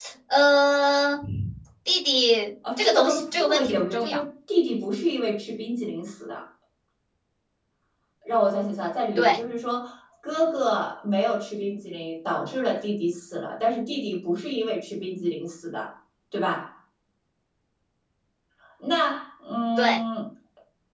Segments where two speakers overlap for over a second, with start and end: 2.8-4.2

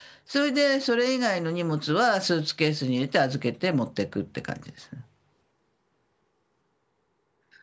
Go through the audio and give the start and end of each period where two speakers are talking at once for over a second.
none

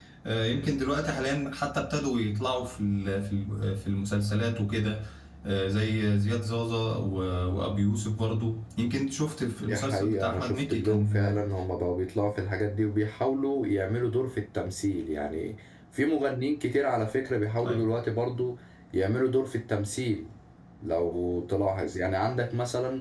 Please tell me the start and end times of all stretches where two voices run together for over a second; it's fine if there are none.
9.7-11.4

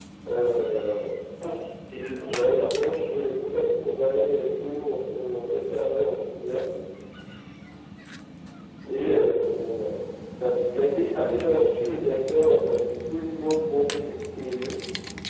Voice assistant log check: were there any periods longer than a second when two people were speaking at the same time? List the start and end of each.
none

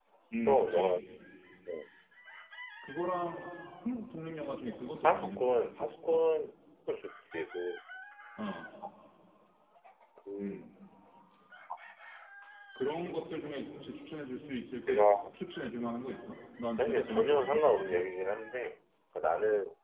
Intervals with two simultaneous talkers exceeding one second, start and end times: 5.0-6.2, 16.8-18.0

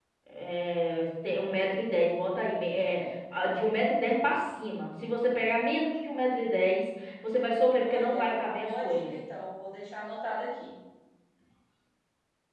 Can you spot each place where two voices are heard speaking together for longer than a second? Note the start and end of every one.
7.8-9.0

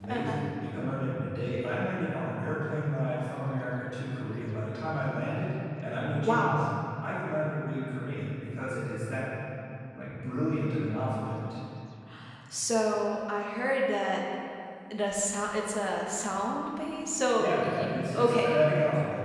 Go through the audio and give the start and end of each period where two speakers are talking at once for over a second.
17.4-18.6

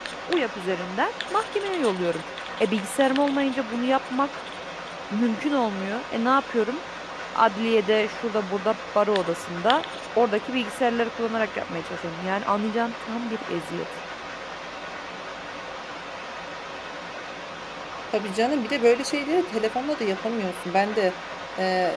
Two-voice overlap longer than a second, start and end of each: none

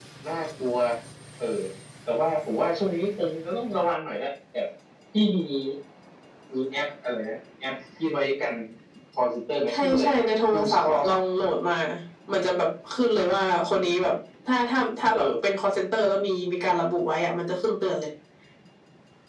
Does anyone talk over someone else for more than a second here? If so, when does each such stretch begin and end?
9.7-11.2

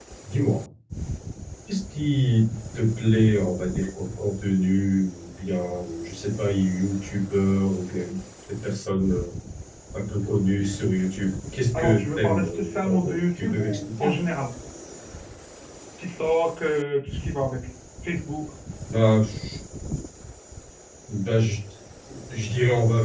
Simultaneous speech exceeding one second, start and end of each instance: 11.7-14.3

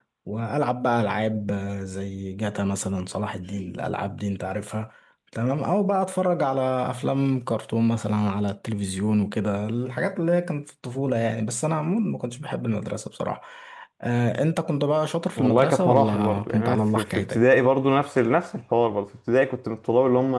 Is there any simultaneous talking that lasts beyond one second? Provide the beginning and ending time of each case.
15.4-17.5

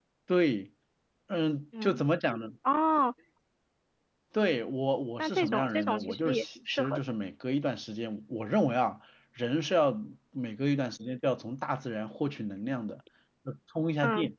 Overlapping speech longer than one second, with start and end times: 5.2-7.0

